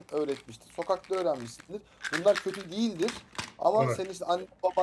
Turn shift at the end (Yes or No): No